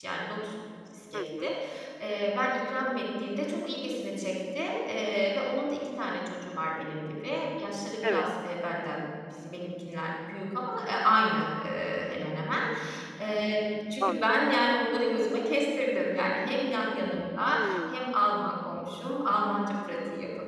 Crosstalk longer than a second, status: none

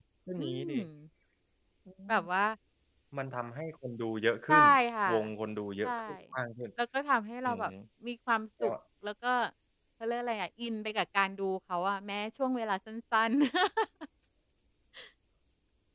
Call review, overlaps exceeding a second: none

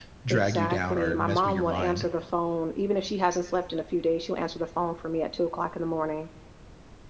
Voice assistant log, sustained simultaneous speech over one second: present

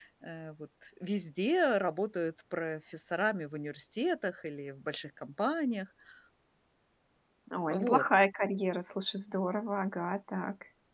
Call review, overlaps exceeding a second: none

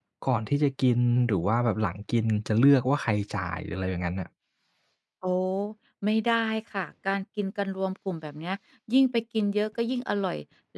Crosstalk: none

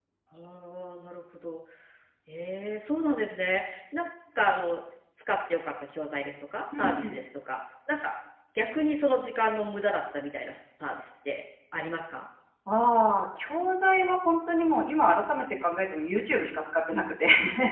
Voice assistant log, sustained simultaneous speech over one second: none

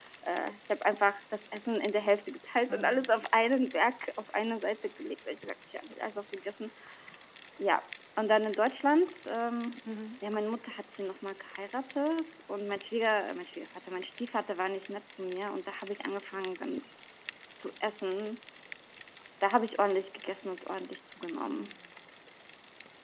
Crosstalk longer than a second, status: none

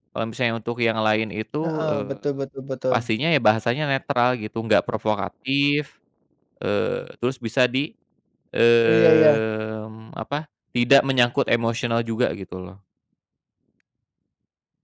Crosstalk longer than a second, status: none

